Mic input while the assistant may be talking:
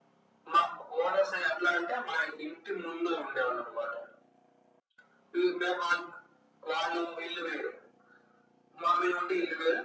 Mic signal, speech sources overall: echo only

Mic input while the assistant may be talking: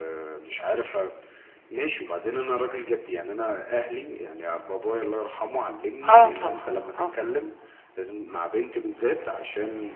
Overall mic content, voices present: both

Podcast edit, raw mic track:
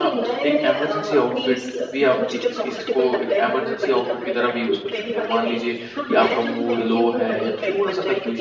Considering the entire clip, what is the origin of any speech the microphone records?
both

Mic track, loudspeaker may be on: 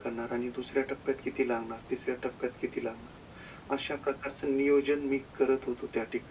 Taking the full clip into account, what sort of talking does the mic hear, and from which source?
echo only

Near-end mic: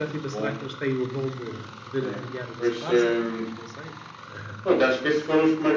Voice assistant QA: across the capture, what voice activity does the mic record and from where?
both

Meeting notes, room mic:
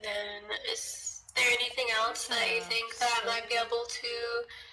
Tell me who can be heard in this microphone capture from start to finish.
both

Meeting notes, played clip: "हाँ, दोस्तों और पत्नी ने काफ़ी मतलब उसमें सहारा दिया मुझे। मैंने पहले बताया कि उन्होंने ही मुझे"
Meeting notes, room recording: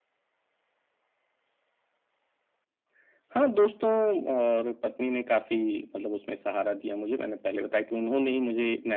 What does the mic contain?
echo only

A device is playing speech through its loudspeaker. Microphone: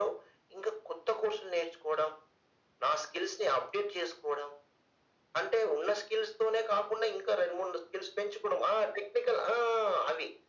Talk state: echo only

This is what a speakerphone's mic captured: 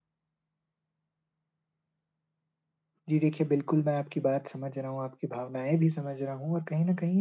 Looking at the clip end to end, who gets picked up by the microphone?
user only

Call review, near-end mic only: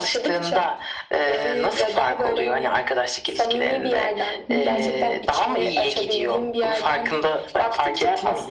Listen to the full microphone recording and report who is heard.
both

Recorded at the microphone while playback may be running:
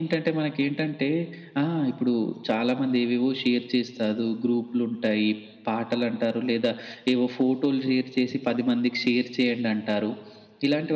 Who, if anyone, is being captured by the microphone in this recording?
echo only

